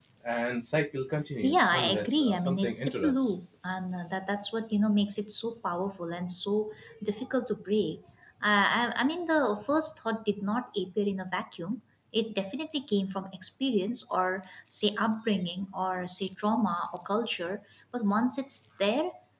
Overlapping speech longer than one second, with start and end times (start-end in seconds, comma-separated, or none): 1.4-3.4